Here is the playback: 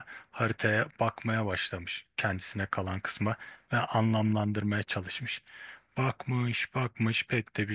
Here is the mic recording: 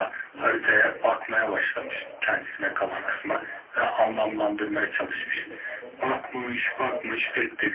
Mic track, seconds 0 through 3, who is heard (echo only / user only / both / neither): both